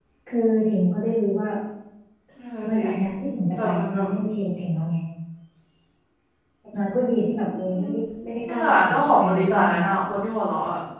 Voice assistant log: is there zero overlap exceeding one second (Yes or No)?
No